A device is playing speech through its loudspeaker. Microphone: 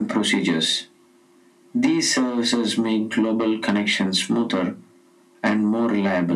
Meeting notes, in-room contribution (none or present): none